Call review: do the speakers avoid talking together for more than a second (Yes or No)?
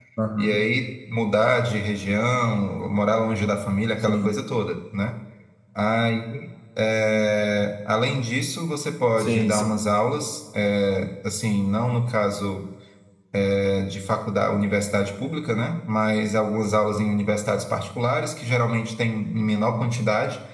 Yes